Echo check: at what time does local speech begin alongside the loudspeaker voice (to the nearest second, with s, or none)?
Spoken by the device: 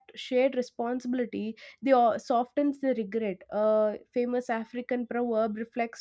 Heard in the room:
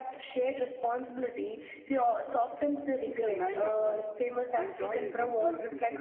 3 s